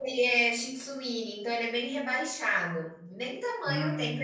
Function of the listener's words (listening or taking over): listening